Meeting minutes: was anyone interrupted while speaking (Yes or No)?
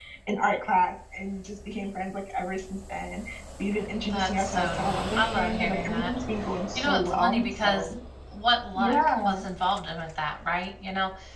Yes